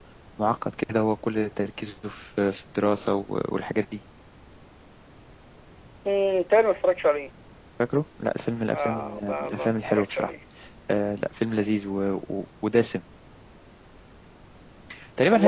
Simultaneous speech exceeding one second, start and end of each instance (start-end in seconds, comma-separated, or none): 8.8-10.3